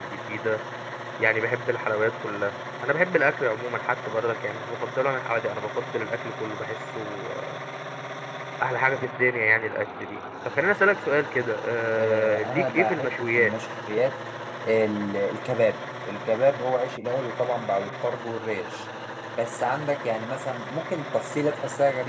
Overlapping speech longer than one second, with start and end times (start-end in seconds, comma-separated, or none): 12.0-13.5